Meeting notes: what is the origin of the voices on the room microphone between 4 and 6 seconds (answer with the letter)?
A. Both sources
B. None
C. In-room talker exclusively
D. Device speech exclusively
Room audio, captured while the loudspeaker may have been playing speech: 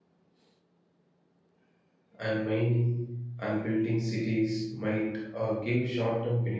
C